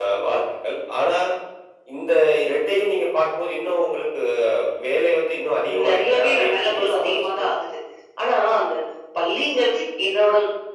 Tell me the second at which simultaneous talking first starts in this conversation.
5.7 s

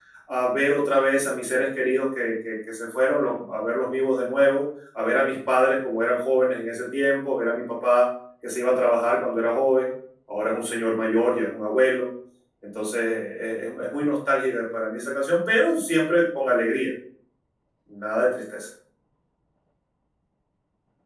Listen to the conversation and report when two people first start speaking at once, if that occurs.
none

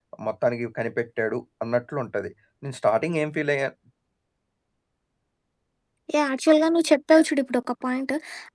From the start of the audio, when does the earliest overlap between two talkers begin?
none

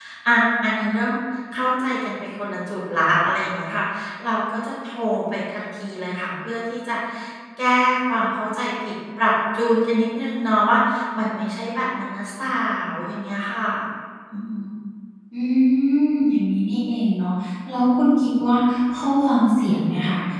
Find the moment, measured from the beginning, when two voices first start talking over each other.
none

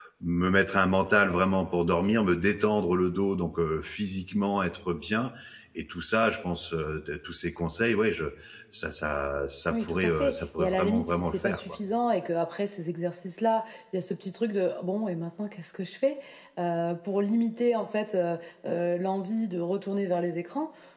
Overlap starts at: 9.7 s

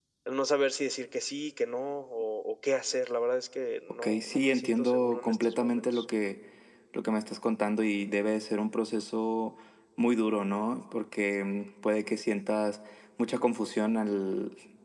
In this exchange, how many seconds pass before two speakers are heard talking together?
4.0 s

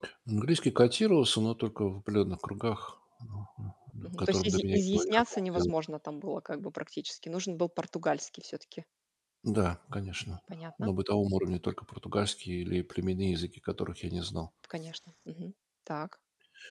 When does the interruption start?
4.2 s

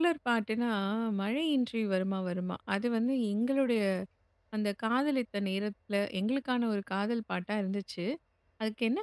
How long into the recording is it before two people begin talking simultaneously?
none

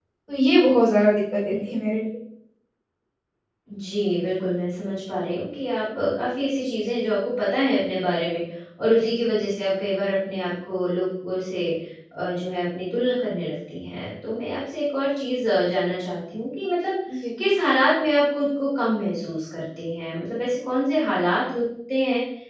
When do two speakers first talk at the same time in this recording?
none

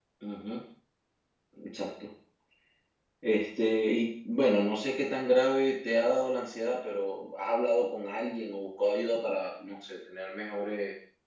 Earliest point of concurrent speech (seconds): none

